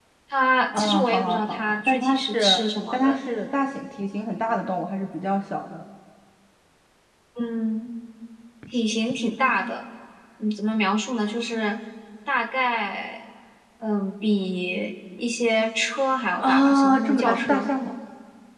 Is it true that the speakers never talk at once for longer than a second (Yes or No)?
No